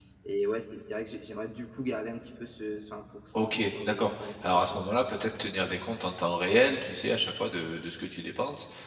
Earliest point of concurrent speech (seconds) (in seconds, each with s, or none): 3.3 s